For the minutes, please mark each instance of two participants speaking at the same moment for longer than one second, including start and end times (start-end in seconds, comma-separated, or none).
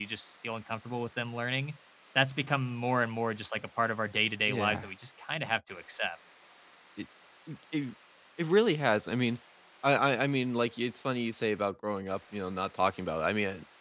none